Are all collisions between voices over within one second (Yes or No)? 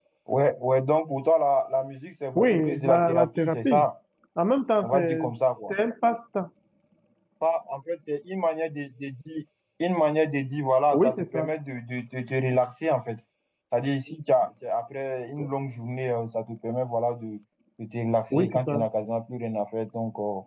No